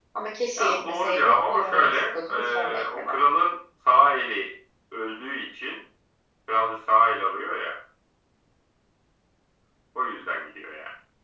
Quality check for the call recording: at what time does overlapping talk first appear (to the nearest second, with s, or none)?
1 s